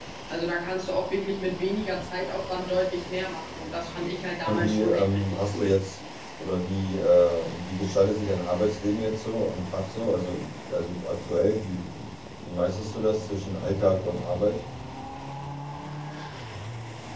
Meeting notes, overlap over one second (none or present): present